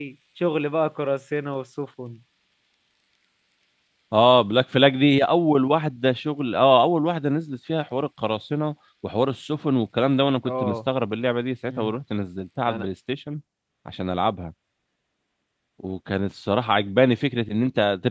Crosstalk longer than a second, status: none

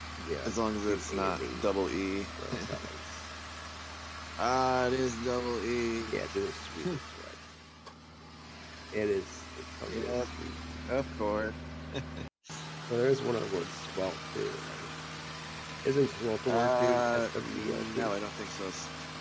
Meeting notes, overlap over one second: present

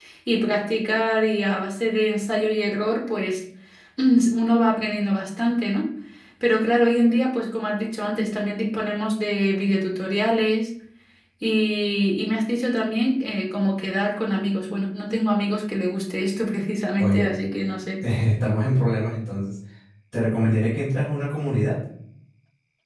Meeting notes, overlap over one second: none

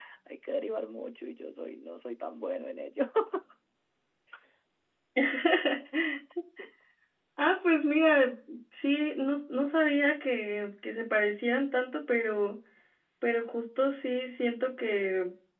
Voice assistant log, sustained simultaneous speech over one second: none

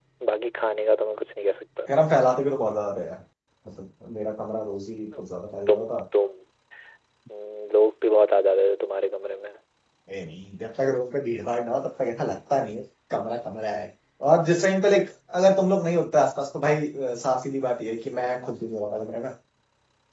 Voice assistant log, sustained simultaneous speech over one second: none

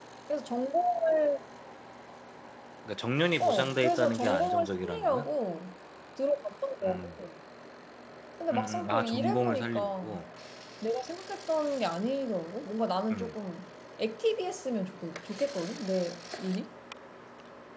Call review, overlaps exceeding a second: present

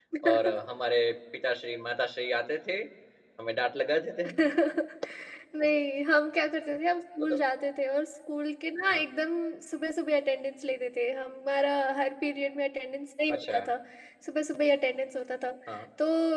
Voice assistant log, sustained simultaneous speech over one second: none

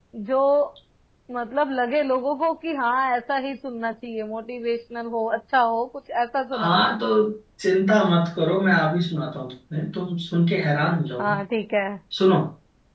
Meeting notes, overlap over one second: none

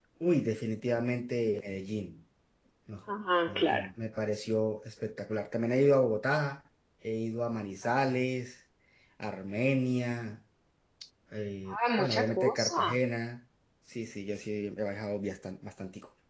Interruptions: present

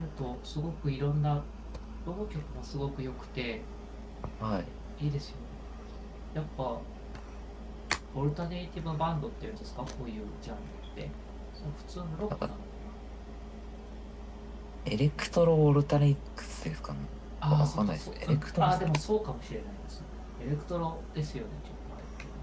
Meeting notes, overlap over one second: present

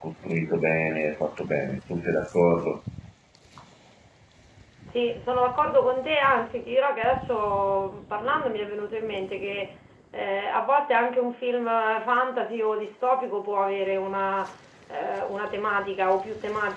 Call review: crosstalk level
none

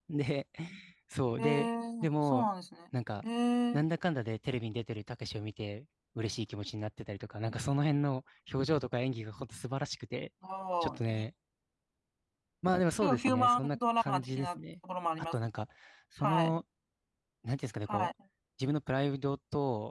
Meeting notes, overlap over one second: present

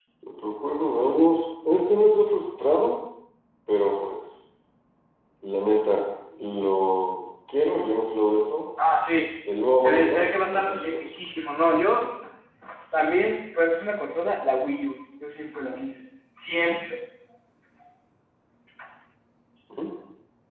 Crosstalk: present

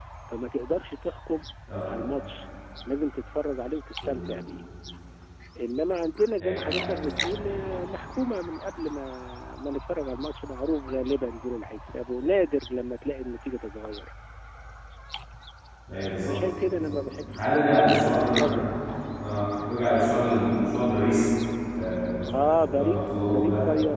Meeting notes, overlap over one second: present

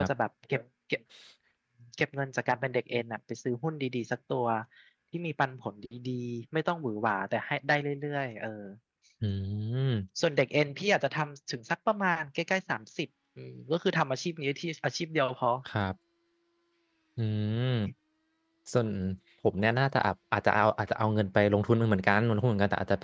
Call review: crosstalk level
none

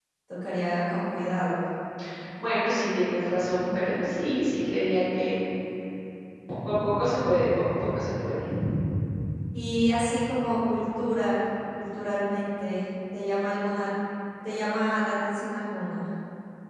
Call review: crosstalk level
none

